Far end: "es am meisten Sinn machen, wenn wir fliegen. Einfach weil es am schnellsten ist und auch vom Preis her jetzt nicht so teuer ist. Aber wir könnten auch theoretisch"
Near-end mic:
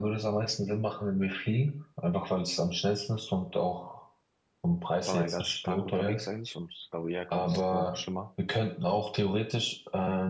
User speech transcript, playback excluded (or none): schon einen ganzen Tag unterwegs eigentlich und da wo ihr herkommt, ist es sogar noch schlimmer.